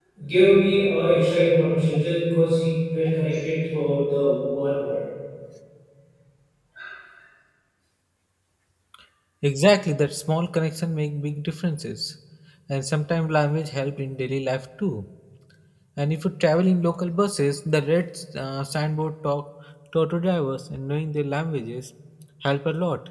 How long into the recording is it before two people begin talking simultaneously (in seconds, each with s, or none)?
none